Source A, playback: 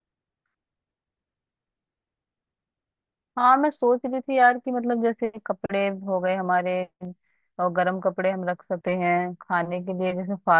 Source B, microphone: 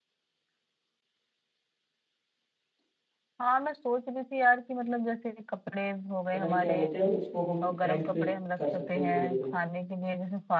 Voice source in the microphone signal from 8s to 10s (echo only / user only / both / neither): both